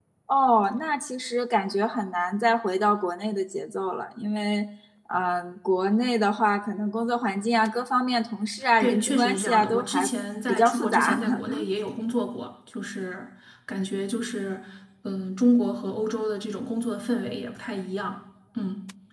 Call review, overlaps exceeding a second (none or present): present